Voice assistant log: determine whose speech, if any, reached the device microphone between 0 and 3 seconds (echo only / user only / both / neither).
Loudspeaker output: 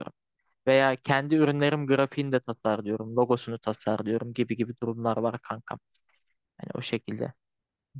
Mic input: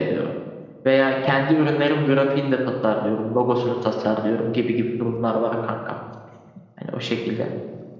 echo only